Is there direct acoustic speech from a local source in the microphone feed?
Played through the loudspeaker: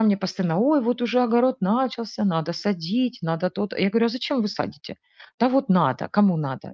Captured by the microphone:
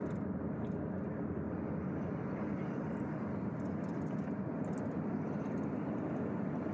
No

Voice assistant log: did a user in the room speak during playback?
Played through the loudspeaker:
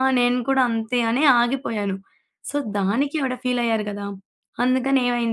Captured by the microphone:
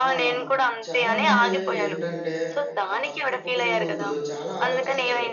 Yes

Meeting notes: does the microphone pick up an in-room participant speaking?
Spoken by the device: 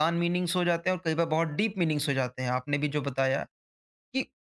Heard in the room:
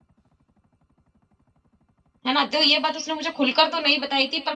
Yes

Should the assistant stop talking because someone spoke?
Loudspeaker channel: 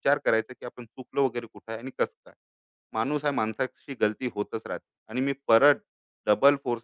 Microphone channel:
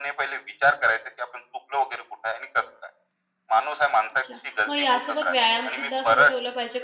Yes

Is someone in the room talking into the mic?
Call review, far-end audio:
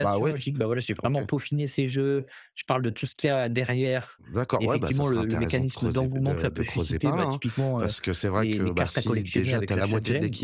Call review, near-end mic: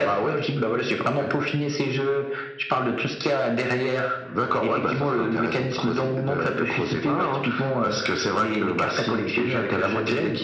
No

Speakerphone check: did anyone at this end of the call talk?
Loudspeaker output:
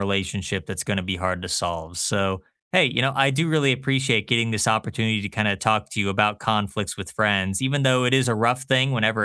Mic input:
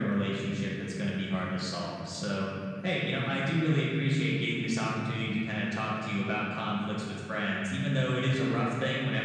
No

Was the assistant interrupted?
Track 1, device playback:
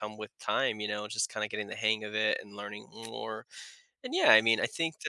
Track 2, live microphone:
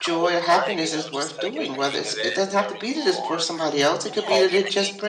Yes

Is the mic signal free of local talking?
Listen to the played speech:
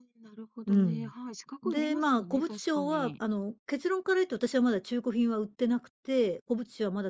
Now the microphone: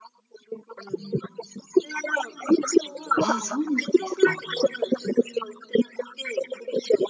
No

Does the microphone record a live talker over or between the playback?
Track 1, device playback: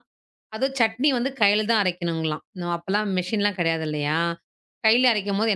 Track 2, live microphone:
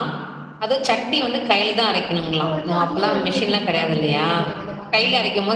Yes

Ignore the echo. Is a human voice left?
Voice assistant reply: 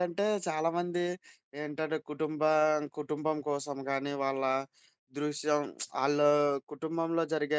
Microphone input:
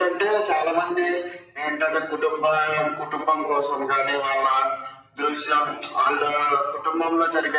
No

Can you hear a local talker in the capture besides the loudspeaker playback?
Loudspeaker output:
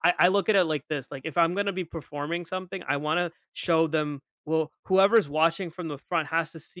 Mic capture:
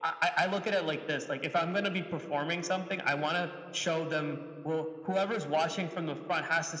No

